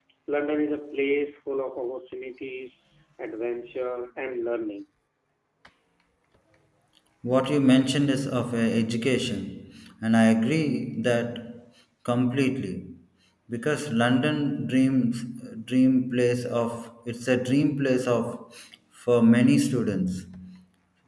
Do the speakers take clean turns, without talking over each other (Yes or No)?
Yes